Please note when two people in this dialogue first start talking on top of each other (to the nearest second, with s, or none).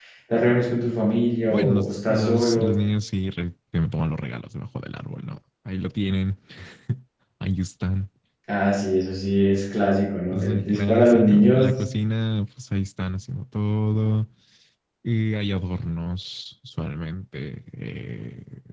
2 s